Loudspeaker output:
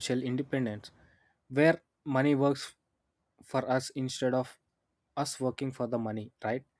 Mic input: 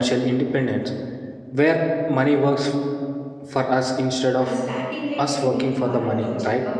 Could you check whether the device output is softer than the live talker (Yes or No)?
No